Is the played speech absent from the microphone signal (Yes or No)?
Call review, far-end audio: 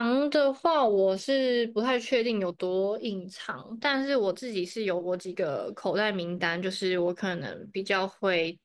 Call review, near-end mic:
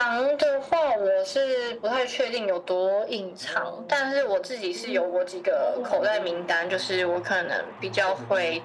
No